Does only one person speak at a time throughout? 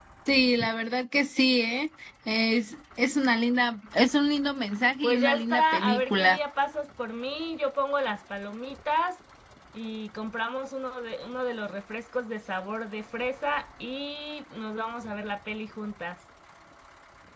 No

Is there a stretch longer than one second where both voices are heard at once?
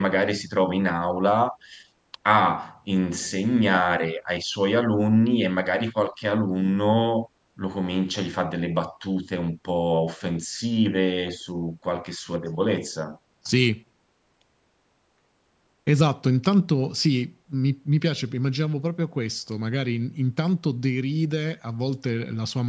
No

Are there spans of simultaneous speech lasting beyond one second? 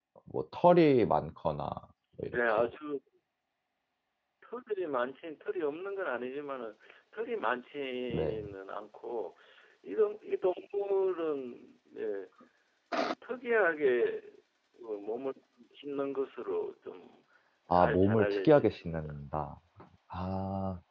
Yes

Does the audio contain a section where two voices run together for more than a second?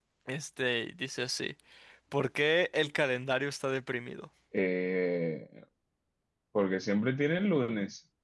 No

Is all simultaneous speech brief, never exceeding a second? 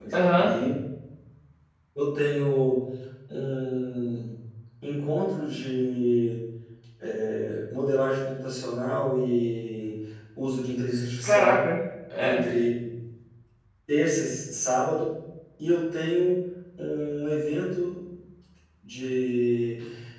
Yes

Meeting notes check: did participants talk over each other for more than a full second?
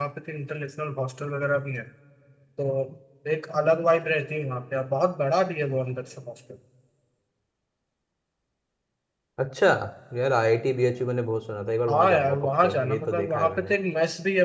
Yes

